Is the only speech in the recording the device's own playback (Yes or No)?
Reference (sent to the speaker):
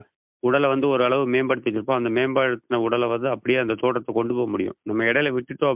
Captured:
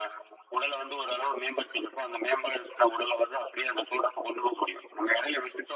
Yes